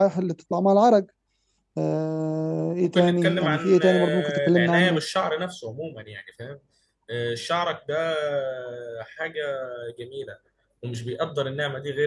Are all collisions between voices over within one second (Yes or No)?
No